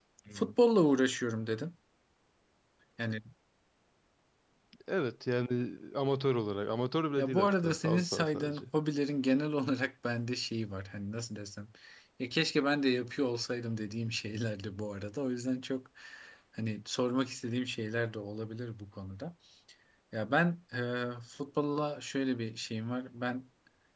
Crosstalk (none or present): present